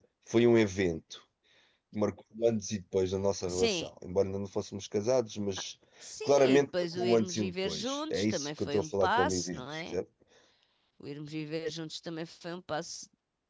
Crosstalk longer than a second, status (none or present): present